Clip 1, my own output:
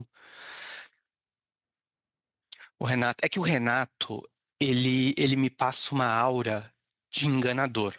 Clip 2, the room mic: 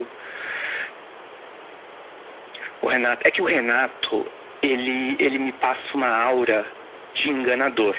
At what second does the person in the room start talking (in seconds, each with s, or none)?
none